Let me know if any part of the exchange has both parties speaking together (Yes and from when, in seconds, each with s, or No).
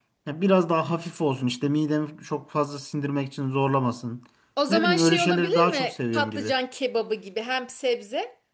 Yes, from 4.7 s